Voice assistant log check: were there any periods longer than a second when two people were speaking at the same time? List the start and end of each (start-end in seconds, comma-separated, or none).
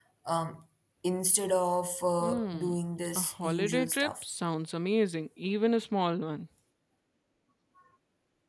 3.2-4.4